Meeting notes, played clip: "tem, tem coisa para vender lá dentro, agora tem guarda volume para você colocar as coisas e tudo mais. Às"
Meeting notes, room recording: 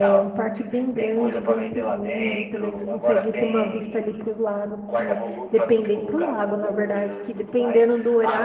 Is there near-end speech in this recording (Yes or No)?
Yes